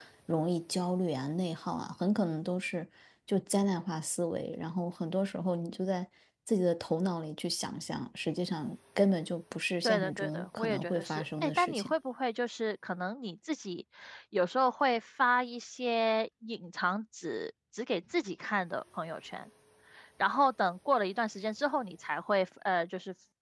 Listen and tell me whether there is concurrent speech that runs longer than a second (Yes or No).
Yes